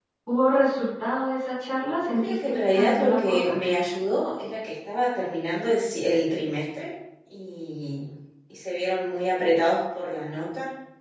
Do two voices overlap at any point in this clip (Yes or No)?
Yes